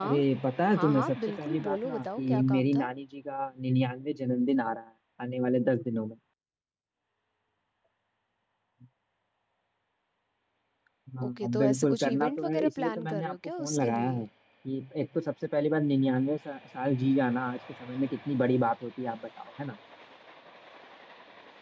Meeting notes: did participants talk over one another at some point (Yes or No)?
Yes